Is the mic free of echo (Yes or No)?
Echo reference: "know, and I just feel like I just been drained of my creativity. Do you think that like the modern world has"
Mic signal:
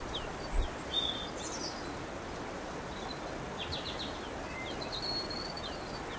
Yes